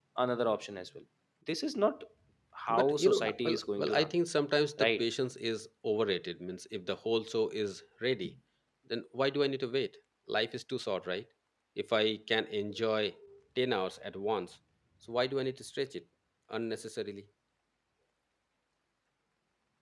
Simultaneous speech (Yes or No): Yes